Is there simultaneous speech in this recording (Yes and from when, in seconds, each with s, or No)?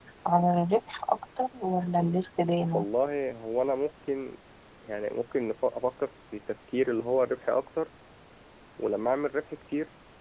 No